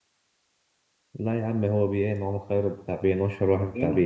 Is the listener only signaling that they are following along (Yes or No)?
No